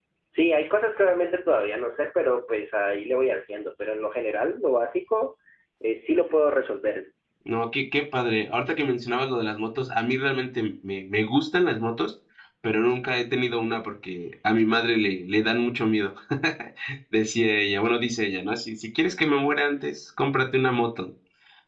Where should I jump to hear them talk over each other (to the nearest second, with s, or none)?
none